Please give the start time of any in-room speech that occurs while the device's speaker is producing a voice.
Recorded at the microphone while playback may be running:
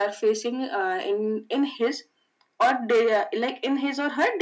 none

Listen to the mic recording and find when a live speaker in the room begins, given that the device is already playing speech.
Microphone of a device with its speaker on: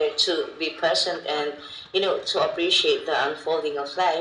none

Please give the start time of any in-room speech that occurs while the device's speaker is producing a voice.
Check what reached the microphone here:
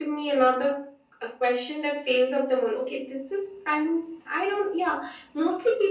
none

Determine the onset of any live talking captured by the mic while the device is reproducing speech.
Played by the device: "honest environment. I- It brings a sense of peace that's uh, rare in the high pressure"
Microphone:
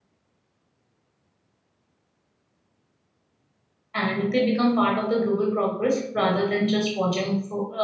3.9 s

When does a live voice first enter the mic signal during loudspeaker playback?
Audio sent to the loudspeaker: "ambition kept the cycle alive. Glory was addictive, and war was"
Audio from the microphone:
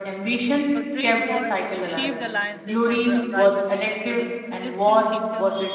0.7 s

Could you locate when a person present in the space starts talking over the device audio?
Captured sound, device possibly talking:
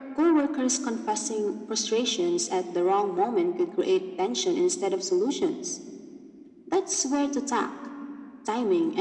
none

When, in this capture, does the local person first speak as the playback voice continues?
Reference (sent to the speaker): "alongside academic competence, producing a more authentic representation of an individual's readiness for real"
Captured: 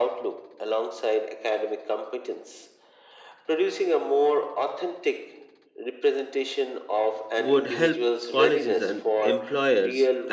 7.4 s

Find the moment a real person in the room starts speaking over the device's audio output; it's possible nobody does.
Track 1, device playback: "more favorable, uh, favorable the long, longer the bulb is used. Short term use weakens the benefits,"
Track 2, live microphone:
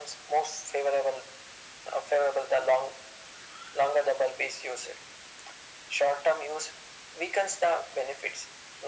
none

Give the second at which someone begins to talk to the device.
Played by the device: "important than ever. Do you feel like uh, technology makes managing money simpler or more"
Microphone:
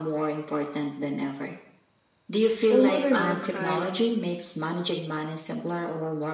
2.7 s

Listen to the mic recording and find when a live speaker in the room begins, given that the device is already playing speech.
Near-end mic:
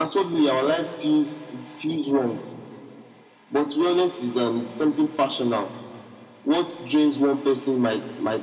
none

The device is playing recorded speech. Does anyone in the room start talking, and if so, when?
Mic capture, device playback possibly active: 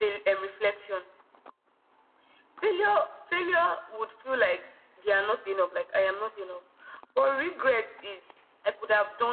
none

